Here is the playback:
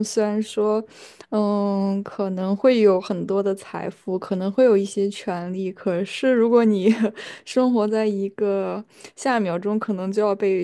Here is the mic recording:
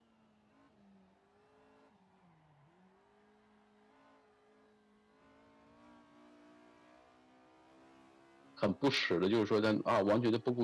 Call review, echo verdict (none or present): none